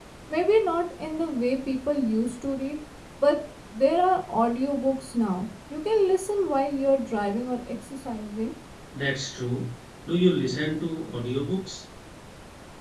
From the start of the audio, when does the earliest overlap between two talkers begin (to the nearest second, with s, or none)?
none